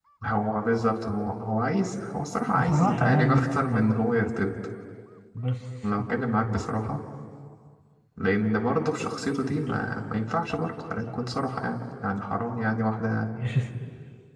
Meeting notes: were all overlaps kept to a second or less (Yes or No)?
No